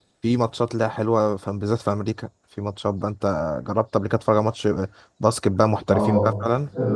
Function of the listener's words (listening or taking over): taking over